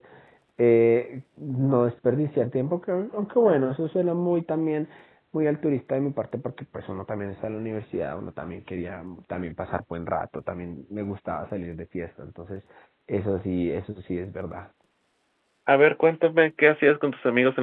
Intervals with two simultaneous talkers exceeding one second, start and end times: none

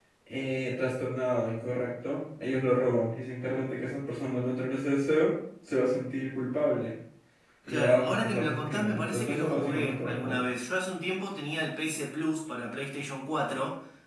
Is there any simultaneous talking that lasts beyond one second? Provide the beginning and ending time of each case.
7.7-10.4

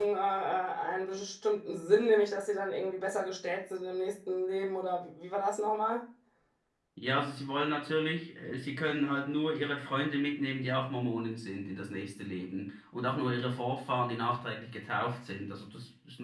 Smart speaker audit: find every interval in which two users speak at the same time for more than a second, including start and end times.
none

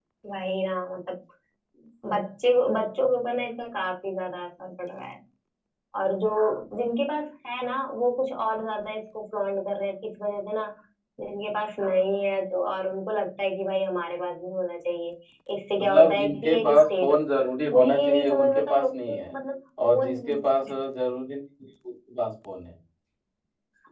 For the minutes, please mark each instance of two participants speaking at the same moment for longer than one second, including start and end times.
15.8-17.2, 17.7-19.3

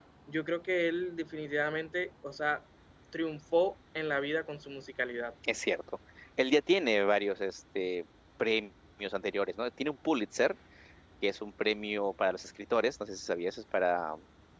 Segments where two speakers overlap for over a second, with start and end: none

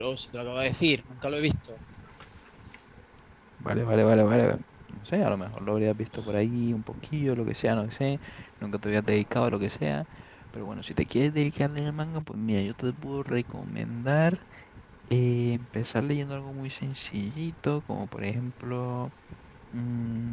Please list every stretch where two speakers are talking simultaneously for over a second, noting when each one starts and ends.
none

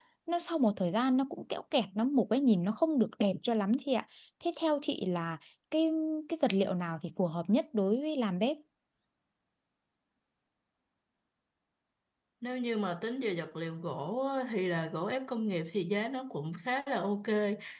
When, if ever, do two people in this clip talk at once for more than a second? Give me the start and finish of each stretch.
none

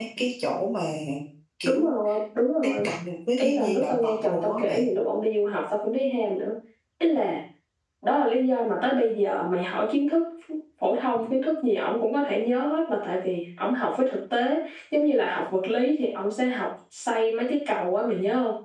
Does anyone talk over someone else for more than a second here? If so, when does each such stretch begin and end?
3.4-4.9

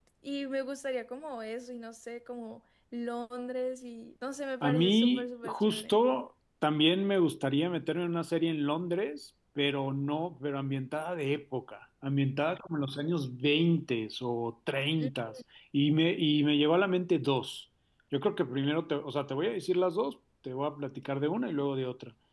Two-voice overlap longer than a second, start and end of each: 4.6-6.0

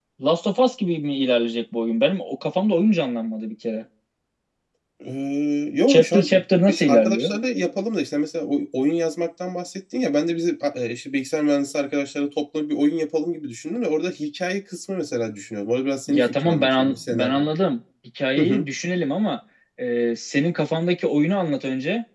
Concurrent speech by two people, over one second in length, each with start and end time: 5.9-7.3, 16.1-17.5

